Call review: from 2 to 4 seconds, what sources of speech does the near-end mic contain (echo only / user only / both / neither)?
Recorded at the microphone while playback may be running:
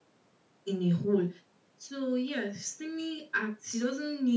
echo only